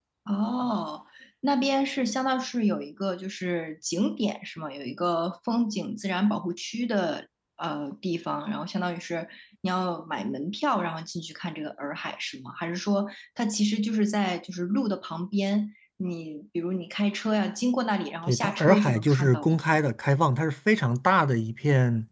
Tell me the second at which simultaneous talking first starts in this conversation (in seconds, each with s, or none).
18.3 s